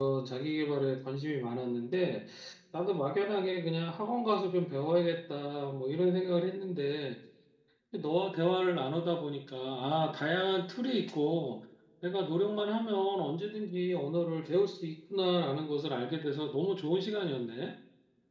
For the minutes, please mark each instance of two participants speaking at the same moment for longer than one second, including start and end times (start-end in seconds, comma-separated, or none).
none